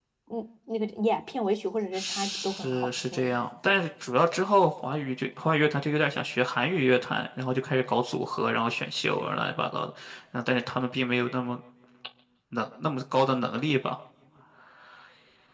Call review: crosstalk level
present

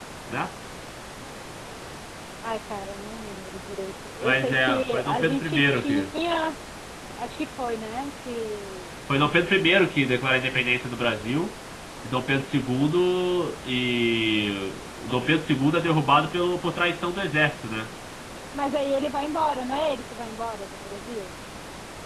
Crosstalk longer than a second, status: present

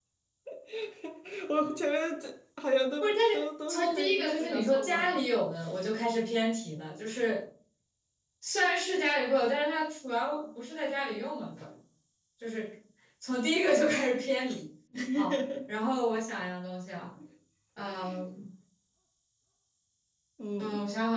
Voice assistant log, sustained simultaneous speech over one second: present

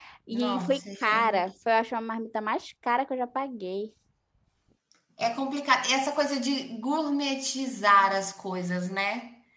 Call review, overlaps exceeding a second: present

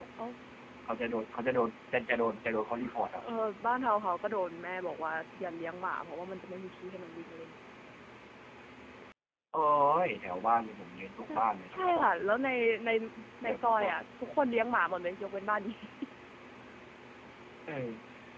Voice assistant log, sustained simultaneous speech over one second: none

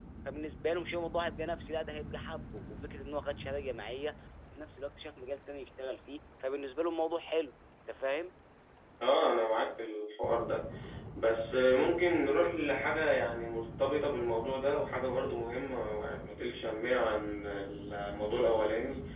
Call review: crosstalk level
none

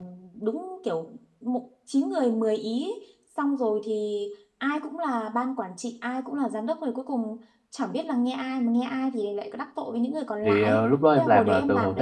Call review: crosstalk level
present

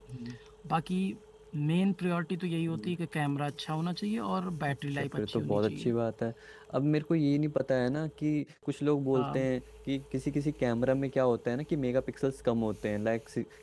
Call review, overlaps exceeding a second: present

